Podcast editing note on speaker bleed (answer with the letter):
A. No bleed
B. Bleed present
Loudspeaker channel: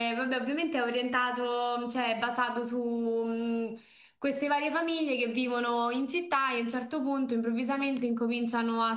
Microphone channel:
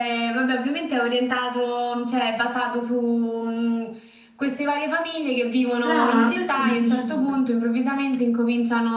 B